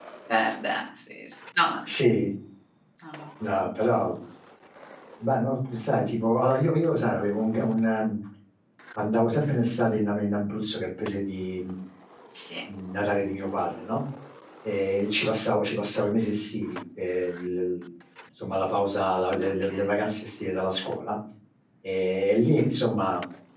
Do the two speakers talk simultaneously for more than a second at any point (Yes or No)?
No